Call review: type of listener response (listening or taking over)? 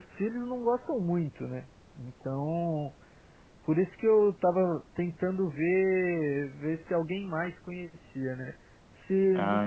listening